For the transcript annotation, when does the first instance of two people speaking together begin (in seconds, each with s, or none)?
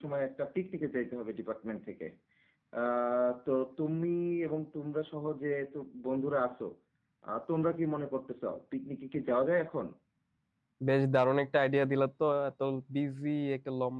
none